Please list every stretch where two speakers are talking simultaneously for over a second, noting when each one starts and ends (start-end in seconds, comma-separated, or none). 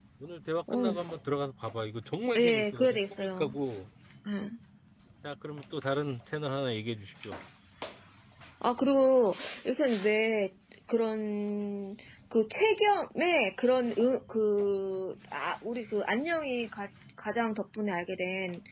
2.4-3.6